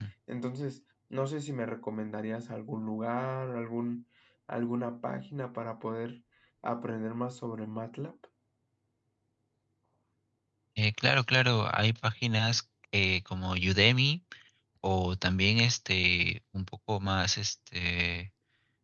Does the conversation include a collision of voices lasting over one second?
No

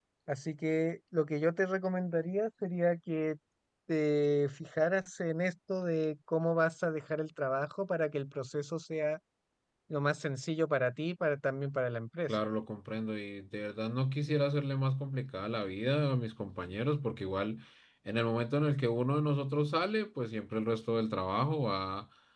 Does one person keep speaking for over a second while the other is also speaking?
No

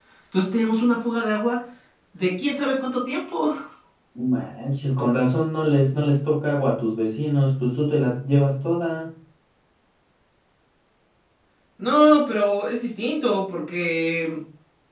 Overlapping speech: No

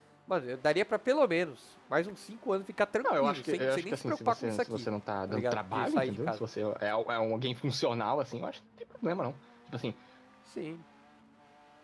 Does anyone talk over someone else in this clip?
Yes, from 3.0 s

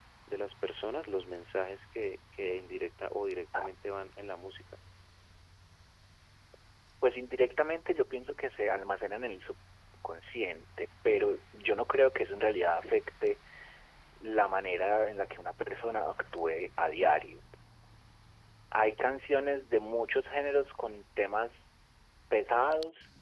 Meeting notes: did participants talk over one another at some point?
No

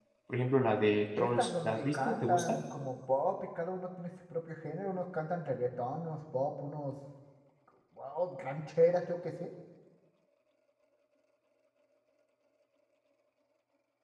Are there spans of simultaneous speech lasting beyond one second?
Yes, from 1.2 s

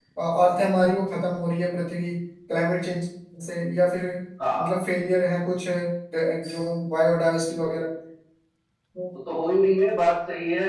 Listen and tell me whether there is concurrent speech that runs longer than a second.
No

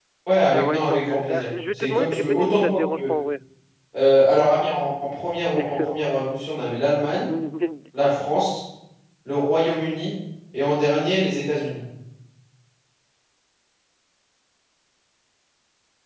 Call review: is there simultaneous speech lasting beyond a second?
Yes, from 0.5 s

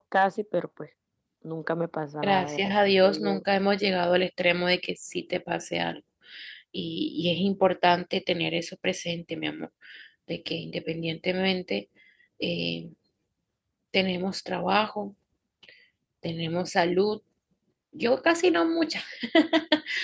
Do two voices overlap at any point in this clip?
Yes, from 2.2 s

